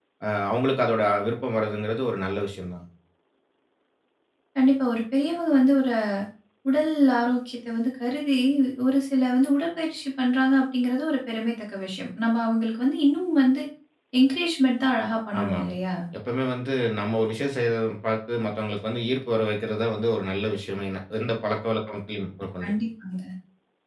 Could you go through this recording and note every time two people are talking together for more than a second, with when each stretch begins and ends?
none

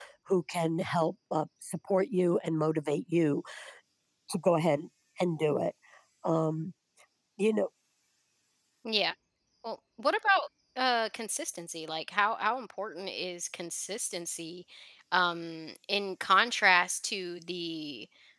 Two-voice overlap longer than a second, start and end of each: none

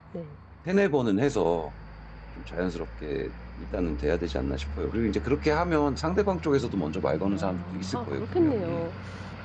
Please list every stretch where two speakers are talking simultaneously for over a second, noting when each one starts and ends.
7.3-8.9

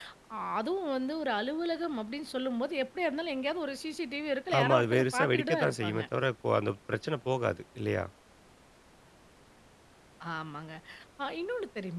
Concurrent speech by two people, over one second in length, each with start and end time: 4.6-6.0

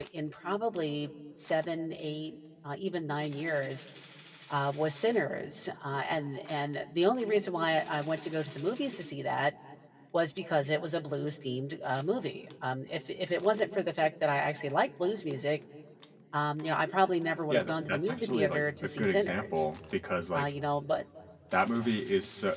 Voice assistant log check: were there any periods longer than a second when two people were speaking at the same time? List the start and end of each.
17.5-19.6

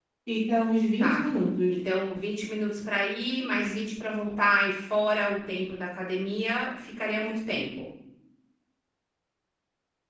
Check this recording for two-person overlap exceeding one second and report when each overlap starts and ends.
none

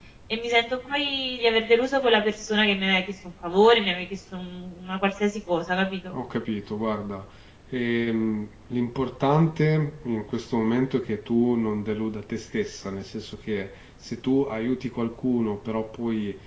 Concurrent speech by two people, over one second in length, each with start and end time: none

